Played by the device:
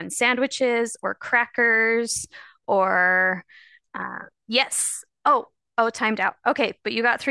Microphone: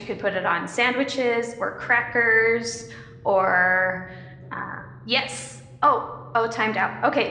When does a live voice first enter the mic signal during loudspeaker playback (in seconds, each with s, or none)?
none